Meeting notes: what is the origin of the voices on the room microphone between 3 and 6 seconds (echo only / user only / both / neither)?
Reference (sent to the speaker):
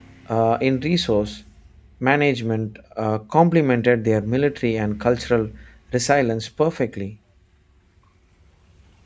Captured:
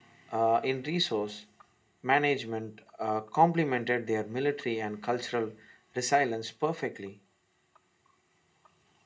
echo only